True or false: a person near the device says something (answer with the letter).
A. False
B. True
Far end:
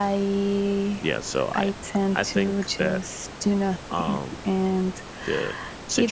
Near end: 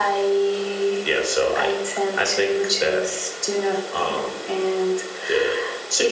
A